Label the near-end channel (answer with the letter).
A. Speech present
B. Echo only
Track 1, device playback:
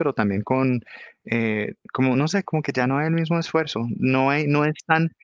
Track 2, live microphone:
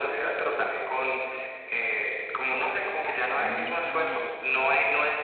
A